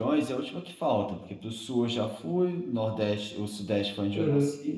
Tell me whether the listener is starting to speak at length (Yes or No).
No